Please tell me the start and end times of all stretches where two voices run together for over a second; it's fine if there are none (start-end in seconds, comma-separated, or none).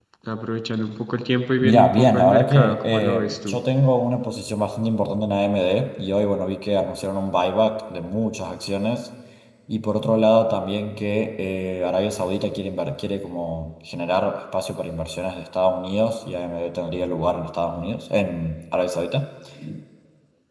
1.6-3.6